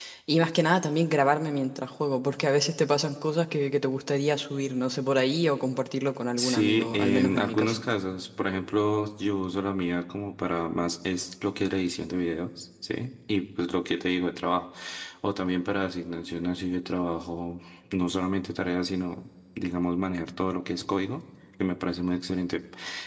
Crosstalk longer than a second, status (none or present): present